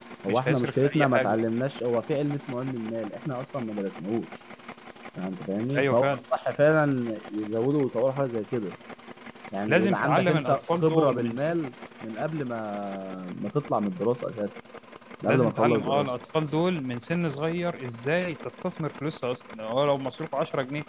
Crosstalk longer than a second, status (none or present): present